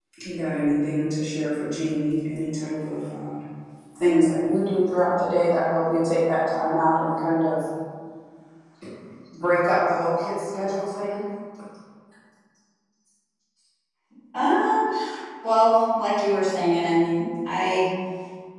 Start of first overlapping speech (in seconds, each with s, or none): none